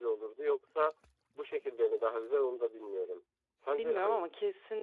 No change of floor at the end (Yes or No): No